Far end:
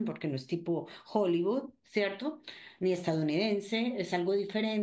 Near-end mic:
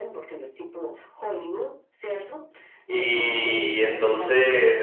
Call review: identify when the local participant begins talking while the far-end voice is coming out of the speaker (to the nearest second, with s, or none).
3 s